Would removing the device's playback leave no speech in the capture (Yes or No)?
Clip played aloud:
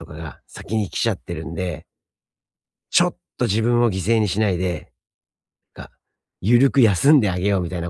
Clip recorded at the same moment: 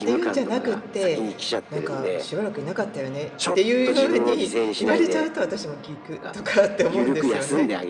No